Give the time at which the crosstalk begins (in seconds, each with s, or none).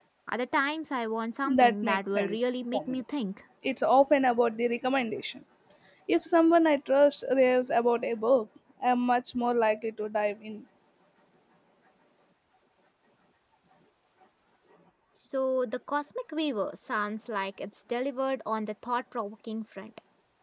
1.4 s